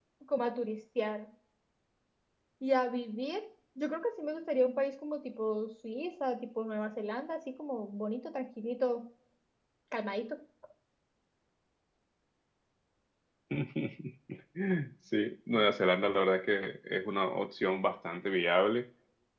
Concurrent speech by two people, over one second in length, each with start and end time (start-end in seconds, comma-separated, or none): none